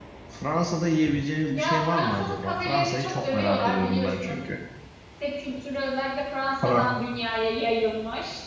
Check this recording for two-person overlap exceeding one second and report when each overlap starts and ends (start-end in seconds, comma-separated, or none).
1.5-4.4